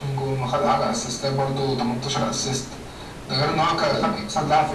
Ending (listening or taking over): listening